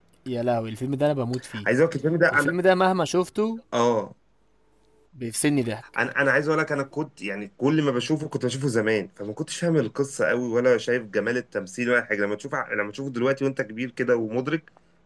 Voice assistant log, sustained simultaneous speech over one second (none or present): none